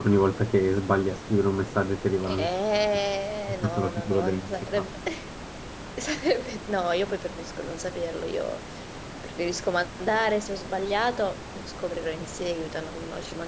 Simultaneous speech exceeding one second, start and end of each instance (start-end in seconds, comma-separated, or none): 3.6-4.8